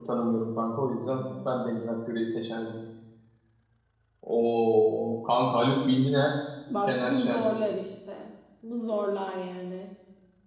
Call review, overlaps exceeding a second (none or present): none